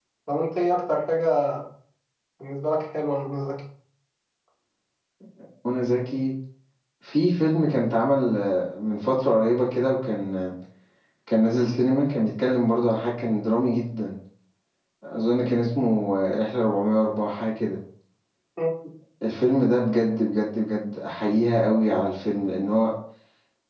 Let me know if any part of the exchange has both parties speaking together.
No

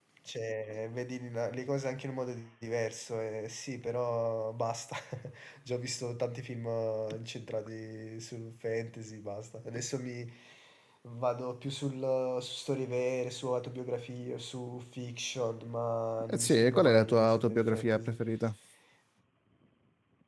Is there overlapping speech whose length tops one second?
Yes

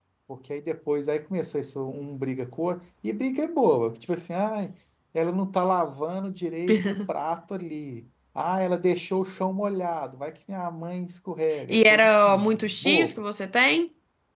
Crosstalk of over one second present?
Yes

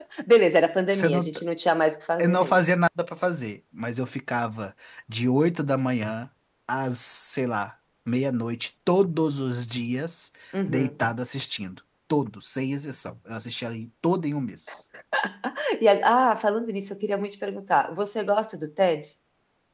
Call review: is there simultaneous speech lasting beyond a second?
No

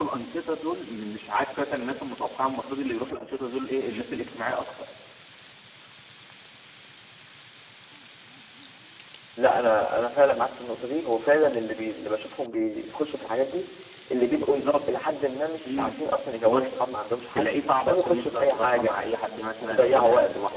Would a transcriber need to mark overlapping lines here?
Yes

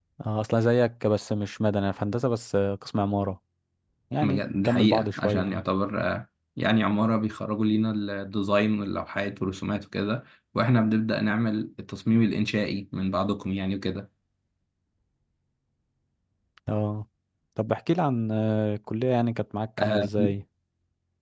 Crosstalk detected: Yes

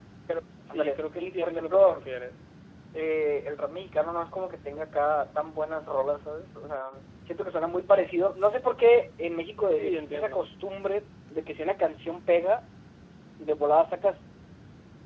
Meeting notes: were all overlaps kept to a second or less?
No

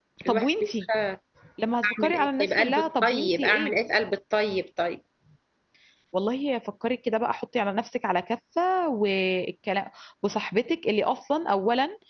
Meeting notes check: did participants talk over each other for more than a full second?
Yes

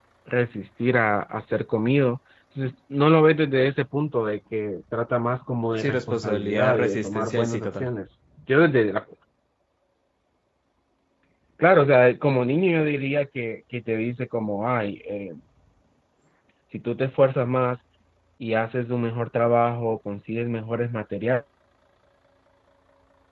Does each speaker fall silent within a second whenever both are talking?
No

